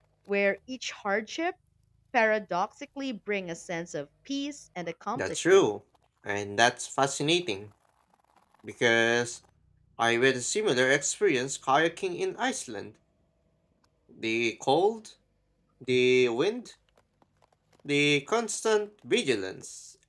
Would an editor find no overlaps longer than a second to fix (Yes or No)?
Yes